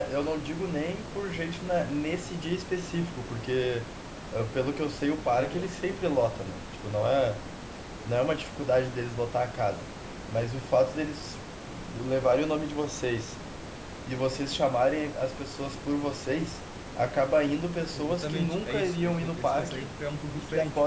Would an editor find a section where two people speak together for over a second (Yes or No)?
Yes